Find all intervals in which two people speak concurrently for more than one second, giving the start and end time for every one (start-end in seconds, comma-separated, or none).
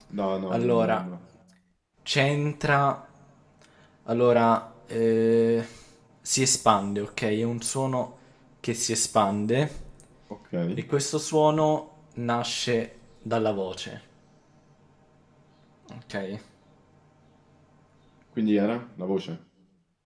none